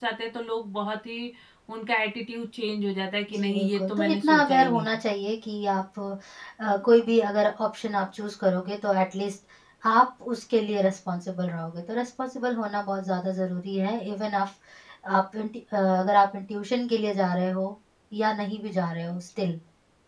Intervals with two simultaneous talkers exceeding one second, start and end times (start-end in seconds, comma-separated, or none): 3.3-5.0